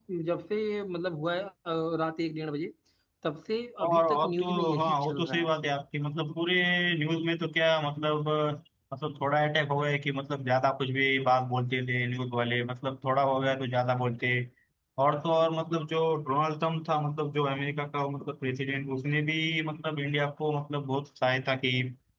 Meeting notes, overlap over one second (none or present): present